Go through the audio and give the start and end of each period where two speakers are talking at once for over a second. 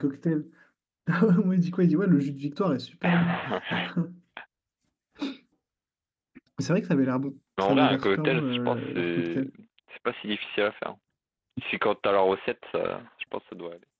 7.7-9.4

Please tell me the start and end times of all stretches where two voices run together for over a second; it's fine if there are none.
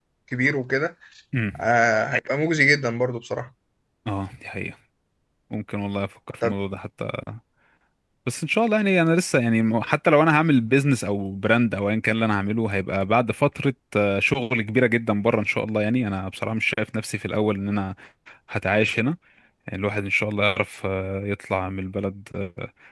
none

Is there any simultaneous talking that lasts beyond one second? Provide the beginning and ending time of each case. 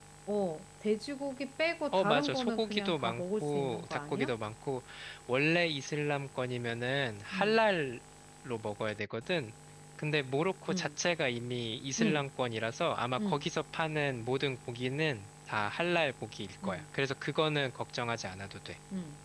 1.9-4.3

